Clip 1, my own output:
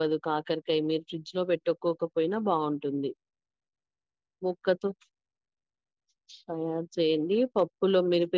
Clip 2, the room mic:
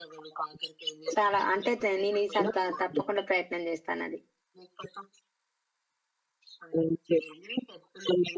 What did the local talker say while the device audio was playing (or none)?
చాలా అంతైతే నేను ఈసారి తప్పకుండా ప్రయత్న నేను చేస్తాను అది